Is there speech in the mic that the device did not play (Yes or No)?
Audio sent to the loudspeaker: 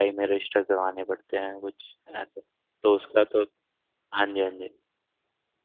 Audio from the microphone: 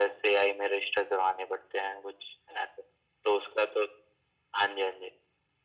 No